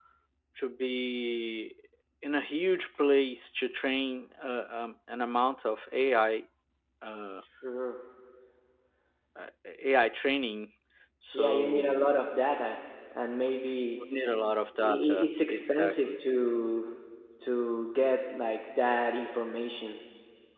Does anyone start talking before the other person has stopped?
Yes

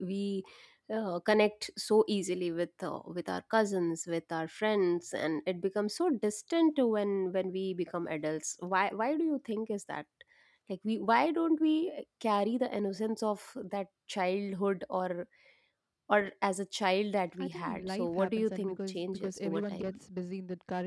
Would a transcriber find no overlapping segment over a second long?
No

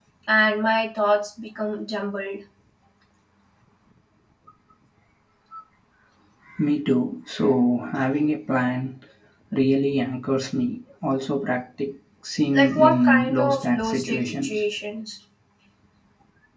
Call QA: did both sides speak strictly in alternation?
No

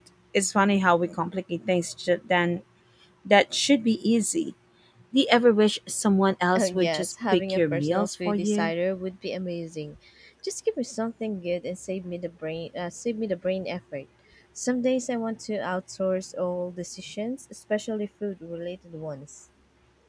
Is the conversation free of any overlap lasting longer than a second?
No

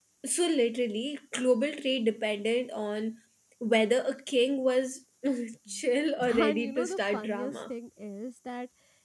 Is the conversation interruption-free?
No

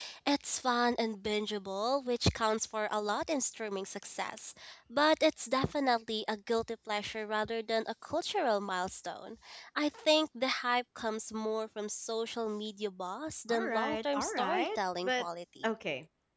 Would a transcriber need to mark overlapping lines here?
Yes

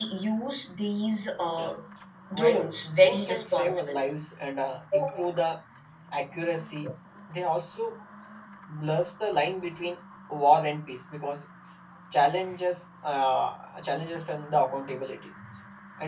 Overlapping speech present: Yes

